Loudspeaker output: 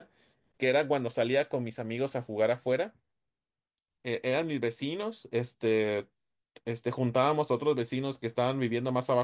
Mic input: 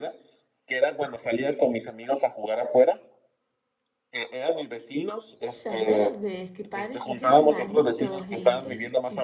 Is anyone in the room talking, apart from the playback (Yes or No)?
Yes